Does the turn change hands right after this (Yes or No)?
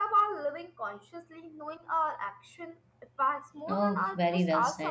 Yes